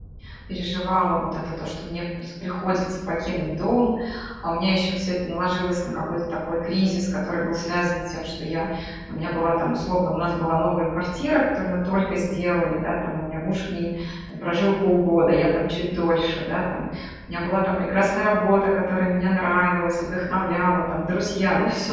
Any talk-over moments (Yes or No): No